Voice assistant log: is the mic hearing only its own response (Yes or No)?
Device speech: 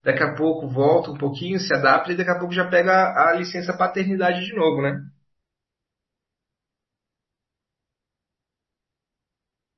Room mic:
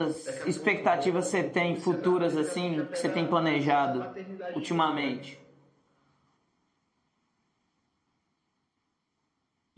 No